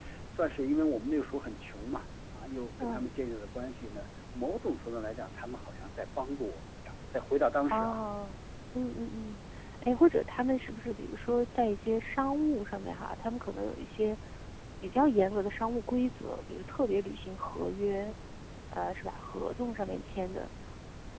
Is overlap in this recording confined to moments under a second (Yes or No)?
Yes